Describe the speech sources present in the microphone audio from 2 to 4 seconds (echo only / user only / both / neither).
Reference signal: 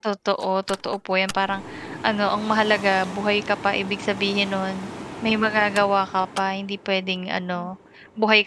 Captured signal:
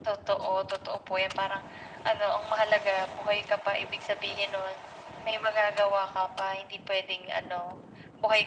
echo only